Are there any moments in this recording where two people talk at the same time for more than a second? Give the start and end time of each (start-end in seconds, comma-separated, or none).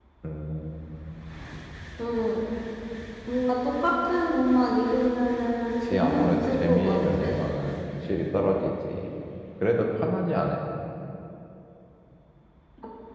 5.8-7.4